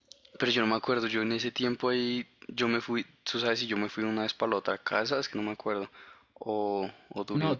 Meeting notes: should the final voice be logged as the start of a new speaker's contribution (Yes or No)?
Yes